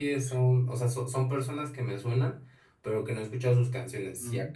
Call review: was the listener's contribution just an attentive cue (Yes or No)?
Yes